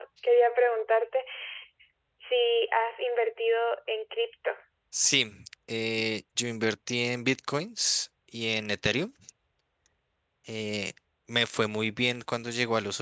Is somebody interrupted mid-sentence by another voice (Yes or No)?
No